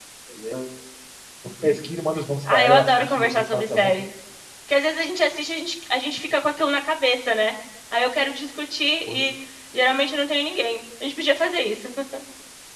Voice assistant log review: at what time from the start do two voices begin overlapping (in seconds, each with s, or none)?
2.4 s